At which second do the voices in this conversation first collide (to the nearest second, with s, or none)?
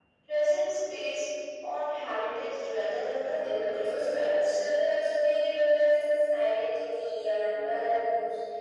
3 s